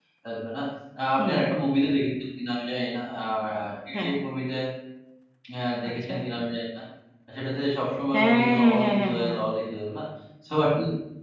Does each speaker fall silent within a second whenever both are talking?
No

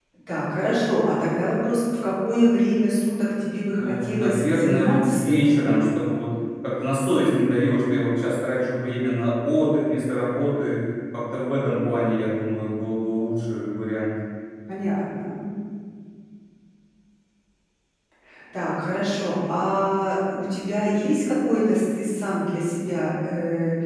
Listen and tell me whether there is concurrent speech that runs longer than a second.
Yes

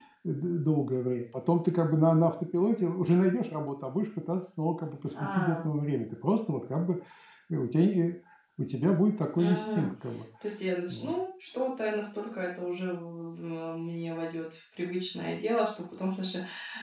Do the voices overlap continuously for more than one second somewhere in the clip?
No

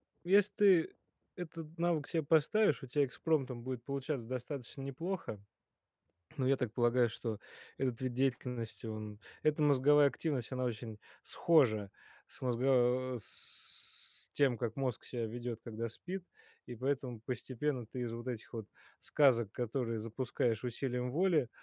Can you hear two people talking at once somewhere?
No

